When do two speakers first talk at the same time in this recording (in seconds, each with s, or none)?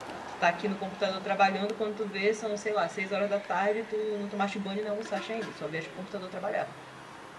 none